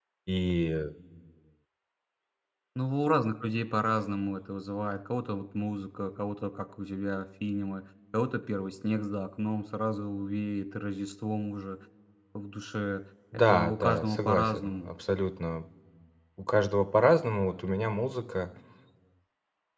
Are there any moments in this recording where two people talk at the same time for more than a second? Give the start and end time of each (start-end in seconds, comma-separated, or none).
13.5-14.9